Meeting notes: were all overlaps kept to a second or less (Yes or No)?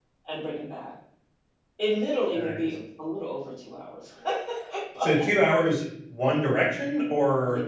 Yes